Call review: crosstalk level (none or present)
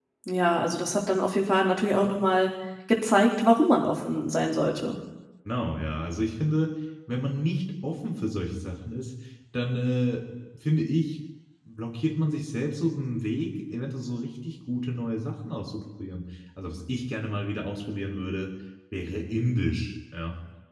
none